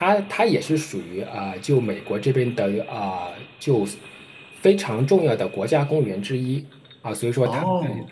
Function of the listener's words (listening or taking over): listening